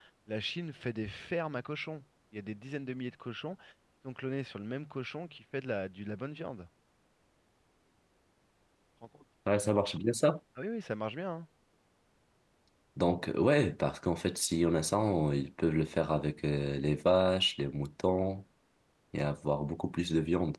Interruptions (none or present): none